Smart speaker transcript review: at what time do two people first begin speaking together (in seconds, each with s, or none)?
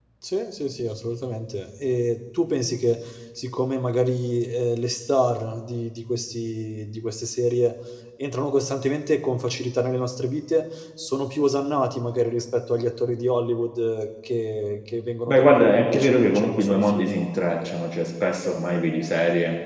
15.3 s